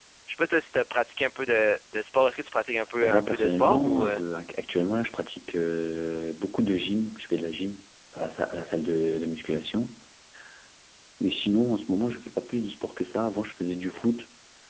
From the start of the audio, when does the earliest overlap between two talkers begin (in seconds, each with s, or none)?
3.0 s